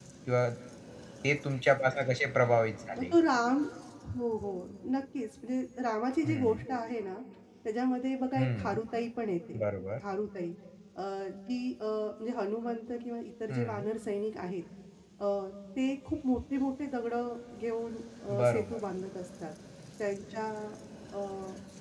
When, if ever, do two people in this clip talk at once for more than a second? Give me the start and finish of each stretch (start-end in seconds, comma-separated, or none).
none